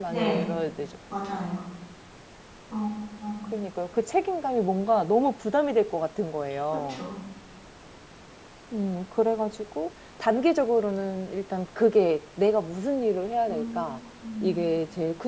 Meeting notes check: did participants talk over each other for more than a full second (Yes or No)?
No